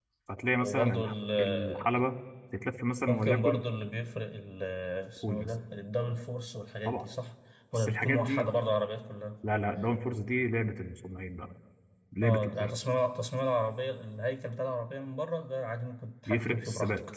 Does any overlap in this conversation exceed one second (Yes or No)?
Yes